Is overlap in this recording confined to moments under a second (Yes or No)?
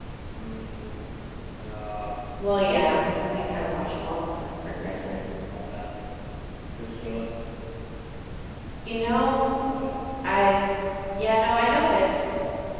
No